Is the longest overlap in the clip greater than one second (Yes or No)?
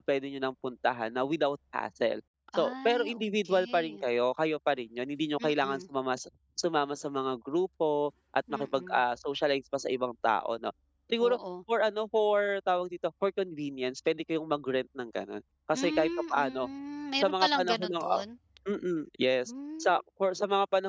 Yes